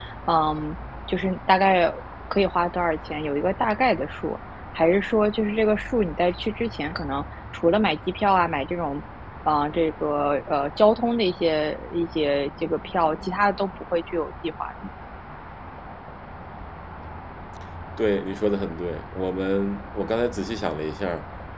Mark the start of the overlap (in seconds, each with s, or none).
none